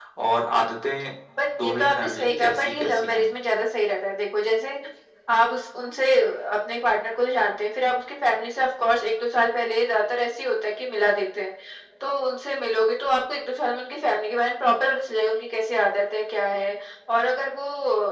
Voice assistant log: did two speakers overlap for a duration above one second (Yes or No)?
Yes